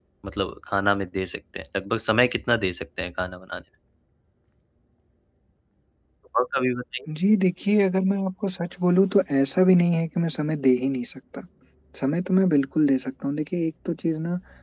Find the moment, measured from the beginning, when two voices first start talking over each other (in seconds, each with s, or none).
none